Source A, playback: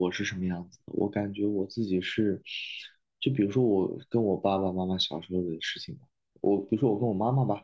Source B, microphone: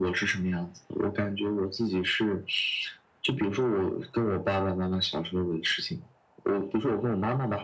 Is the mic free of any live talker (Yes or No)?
Yes